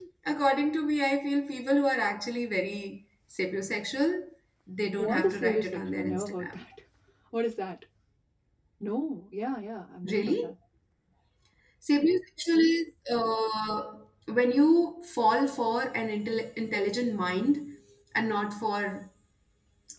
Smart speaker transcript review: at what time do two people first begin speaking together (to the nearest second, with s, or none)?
5 s